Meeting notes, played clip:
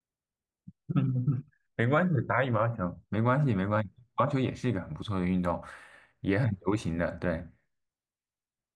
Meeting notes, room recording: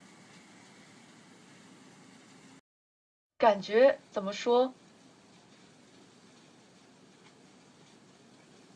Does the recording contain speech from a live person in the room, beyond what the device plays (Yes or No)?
Yes